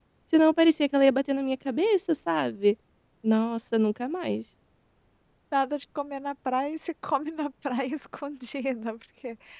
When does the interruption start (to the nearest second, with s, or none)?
none